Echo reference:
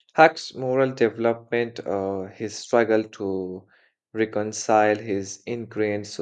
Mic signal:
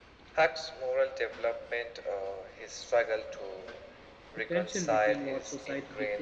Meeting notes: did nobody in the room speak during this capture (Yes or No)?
No